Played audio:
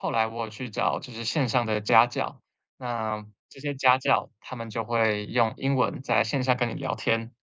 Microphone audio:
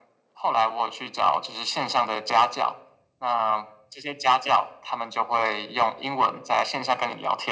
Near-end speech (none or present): none